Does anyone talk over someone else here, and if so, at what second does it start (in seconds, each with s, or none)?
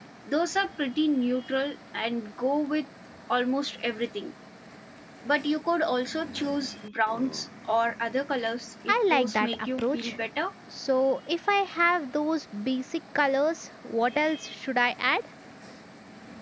8.9 s